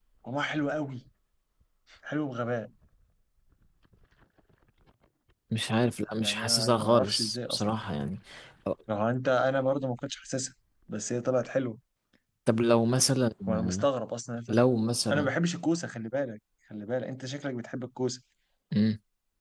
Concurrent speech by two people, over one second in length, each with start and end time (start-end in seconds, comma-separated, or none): 6.1-7.8